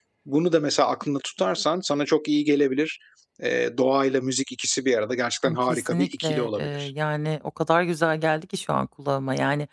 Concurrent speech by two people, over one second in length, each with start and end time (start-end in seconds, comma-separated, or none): 5.5-6.9